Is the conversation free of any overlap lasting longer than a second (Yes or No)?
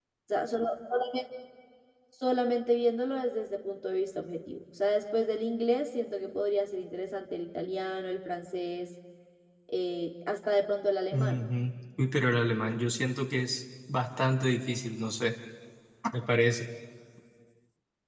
Yes